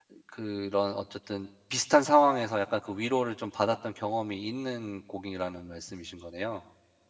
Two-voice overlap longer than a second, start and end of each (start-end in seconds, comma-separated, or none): none